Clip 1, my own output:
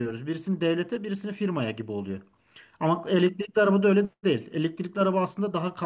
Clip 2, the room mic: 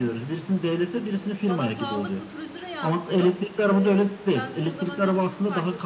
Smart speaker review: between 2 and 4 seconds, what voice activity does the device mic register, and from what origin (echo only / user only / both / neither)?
both